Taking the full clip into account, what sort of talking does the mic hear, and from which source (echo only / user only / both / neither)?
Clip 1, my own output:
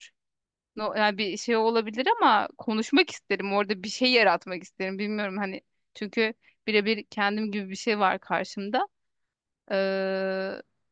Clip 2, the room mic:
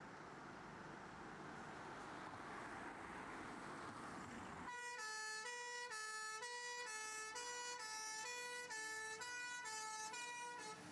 neither